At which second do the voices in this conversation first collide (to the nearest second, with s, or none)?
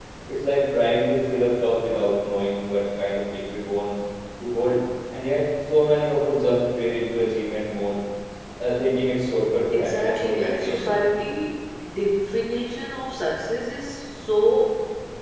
10 s